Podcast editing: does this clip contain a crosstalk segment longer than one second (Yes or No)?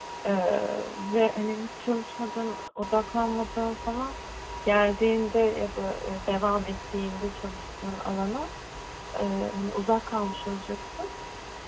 No